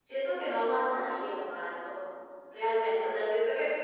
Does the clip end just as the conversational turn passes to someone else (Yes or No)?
No